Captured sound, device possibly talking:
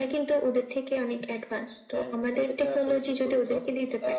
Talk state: echo only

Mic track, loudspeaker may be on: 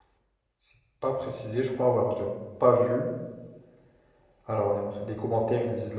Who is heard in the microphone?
user only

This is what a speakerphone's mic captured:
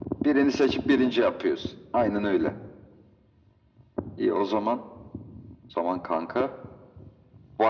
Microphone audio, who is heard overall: echo only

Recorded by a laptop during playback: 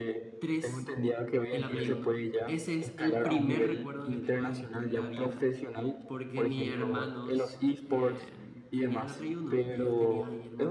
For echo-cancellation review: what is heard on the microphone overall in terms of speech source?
both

